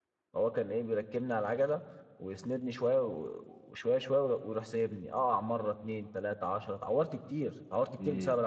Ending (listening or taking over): taking over